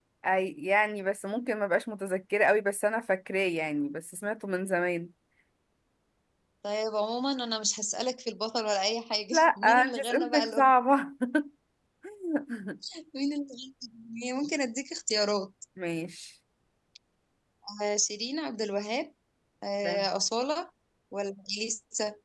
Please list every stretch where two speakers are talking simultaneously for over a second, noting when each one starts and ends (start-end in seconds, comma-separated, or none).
9.3-10.7